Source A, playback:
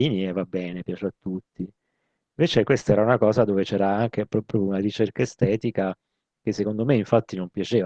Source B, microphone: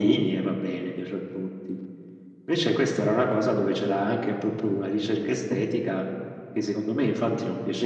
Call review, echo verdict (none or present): present